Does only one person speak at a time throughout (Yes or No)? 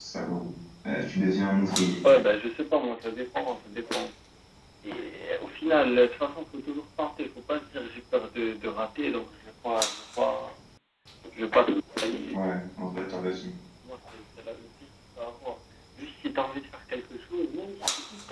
Yes